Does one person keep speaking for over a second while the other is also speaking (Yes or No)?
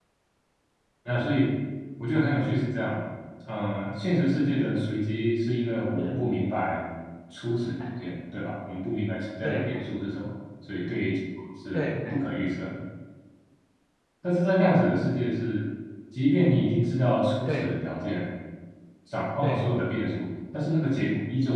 No